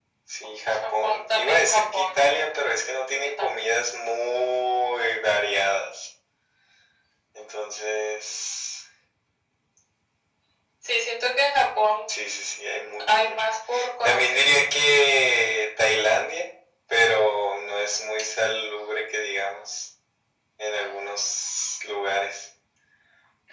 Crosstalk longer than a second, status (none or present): present